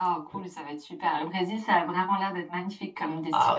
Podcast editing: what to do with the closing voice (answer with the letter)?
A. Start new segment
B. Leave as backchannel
A